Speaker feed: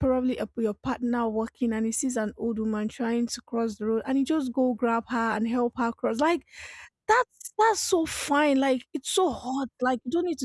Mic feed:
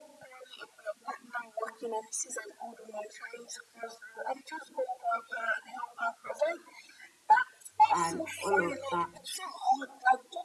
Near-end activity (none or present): present